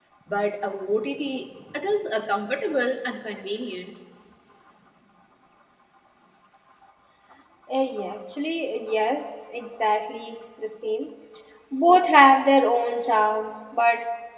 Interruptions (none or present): none